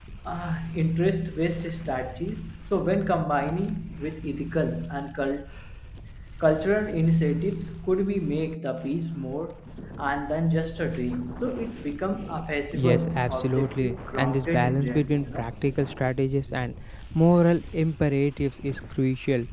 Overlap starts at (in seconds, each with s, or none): 12.7 s